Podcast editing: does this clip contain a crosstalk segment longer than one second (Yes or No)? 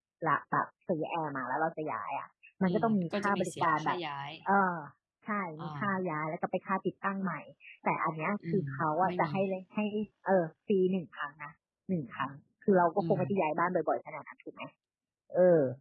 Yes